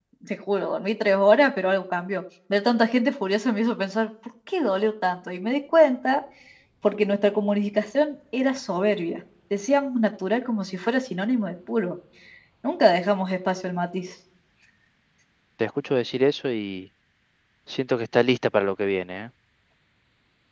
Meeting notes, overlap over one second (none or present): none